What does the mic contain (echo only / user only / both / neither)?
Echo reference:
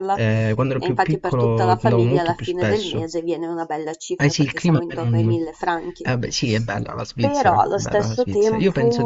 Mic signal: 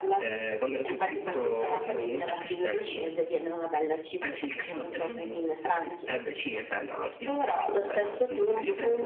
echo only